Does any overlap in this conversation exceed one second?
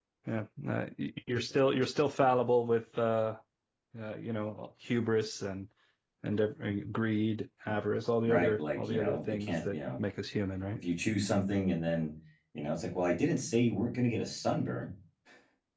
Yes, from 8.2 s

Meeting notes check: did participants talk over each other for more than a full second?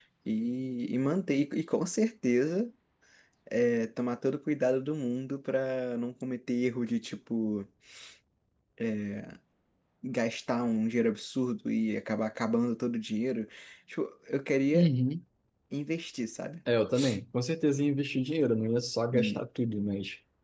No

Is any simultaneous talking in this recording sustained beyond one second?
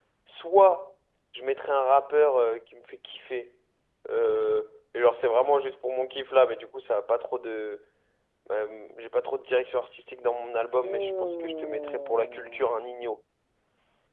Yes, from 10.8 s

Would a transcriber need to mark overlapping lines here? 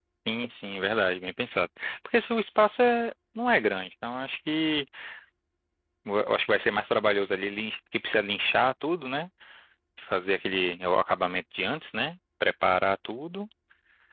No

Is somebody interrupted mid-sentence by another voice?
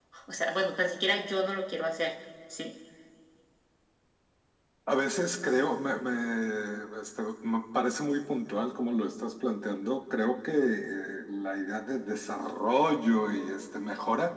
No

